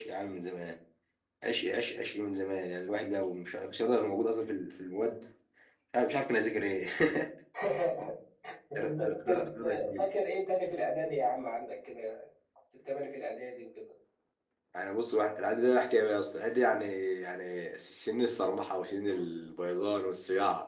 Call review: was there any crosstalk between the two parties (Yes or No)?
Yes